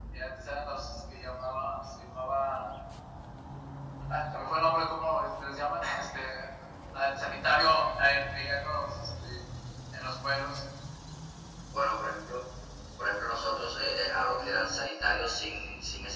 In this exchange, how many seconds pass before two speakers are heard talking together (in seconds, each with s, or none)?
none